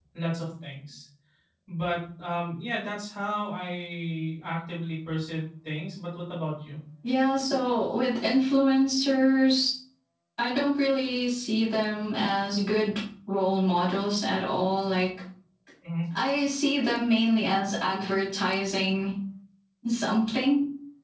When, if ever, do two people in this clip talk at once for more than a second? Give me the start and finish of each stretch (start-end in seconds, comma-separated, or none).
none